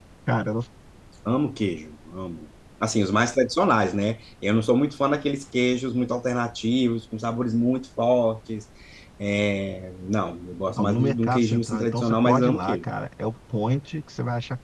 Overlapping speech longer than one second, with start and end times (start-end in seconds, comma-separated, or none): 10.8-12.8